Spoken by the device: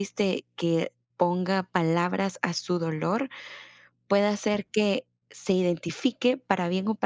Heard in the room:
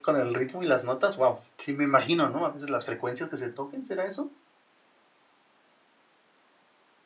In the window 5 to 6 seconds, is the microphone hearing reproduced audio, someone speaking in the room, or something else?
neither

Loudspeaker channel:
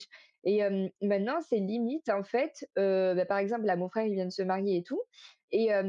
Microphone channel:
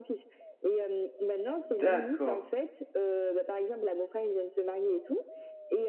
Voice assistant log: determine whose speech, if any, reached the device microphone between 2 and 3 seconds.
both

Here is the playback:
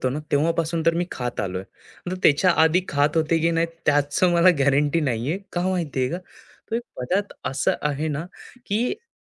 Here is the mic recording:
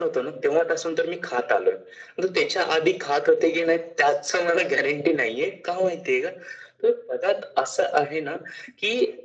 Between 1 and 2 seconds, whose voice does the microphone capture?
echo only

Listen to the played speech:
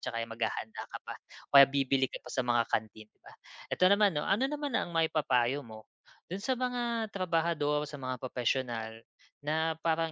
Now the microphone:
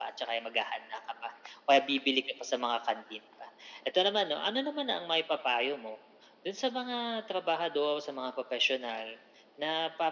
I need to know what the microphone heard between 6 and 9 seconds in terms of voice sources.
echo only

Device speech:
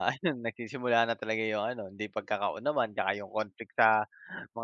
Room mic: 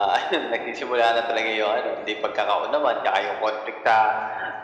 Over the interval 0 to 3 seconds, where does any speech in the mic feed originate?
echo only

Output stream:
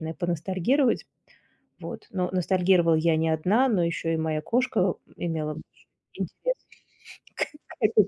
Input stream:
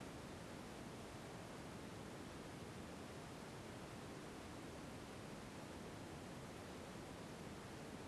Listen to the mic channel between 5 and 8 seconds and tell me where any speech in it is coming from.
neither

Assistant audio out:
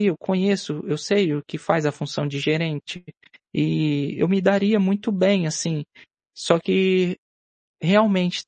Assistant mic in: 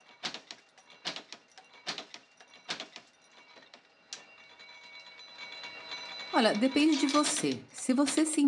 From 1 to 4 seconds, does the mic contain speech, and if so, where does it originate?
neither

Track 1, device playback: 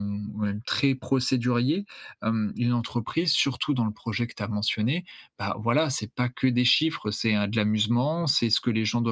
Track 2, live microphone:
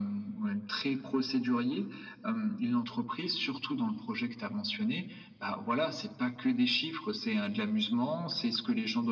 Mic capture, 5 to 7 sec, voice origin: echo only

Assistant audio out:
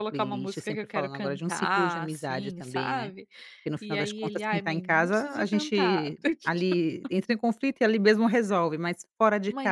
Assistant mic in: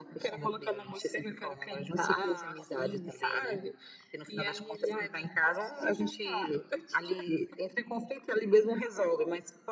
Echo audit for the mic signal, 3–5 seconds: echo only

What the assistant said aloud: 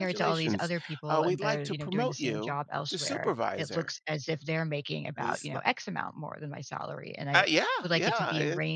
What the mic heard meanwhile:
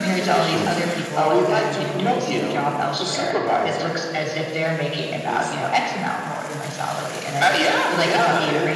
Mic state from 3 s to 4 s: echo only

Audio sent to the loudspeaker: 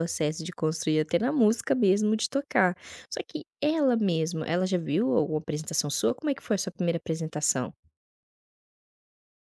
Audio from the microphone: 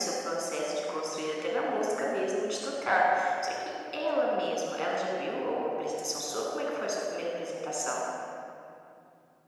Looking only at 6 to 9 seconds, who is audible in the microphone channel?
echo only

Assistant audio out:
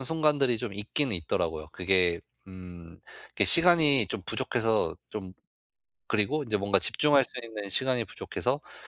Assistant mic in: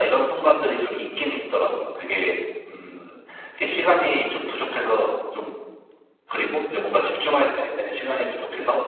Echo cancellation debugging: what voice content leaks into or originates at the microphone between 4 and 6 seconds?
echo only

